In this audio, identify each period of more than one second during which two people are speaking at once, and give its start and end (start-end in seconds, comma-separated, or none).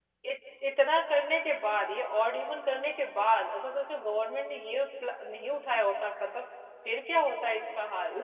none